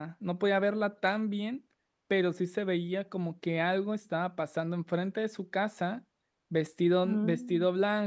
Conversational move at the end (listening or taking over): listening